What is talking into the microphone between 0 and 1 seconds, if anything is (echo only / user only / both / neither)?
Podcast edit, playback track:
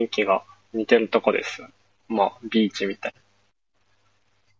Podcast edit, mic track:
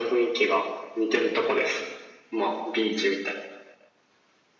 echo only